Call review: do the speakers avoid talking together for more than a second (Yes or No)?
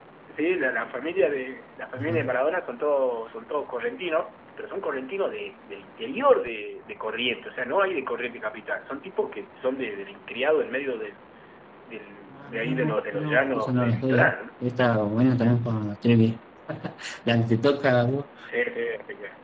No